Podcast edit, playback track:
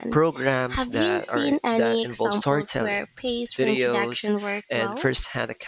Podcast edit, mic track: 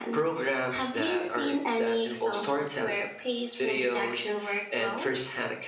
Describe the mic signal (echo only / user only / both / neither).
echo only